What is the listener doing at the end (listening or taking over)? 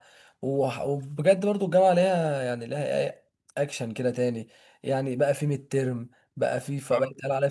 listening